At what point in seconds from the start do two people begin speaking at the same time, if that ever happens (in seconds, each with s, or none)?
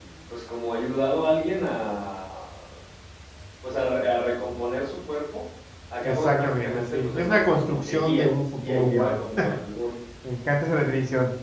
6.0 s